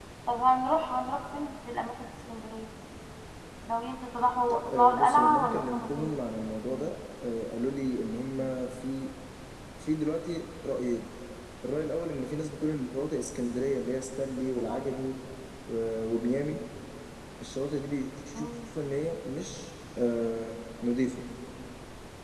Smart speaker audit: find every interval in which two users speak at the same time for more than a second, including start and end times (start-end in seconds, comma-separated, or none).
4.7-6.1